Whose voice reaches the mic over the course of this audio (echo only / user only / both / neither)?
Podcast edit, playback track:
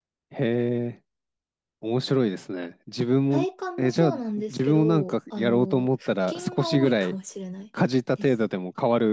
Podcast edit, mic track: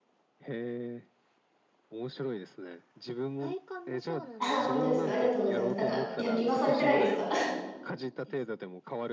both